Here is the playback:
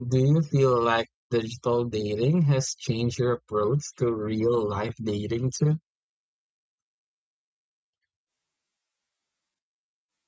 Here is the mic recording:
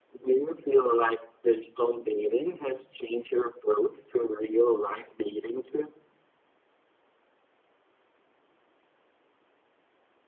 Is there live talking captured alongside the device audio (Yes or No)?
No